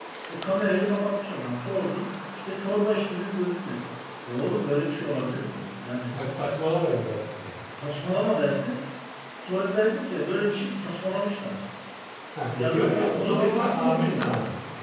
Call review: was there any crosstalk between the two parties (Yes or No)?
Yes